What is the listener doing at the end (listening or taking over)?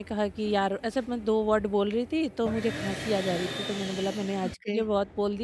listening